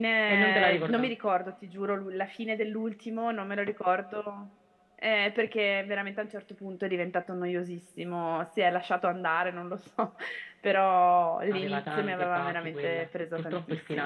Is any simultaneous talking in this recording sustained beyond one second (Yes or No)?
Yes